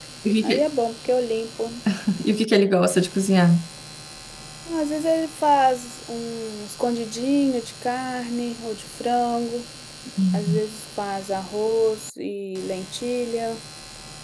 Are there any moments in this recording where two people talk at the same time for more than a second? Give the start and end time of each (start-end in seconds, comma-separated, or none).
none